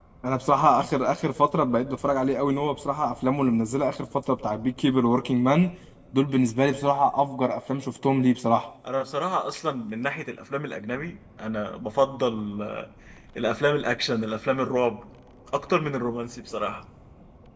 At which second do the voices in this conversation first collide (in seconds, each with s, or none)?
none